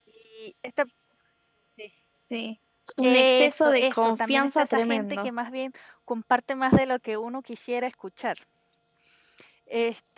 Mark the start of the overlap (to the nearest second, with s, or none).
3 s